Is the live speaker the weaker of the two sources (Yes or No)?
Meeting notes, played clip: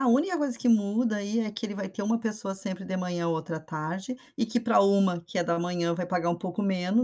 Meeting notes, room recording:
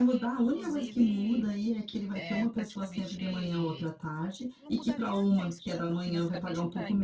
Yes